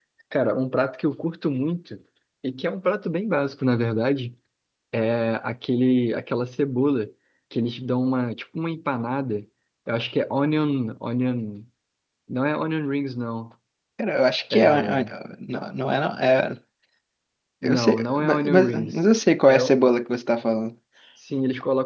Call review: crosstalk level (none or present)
present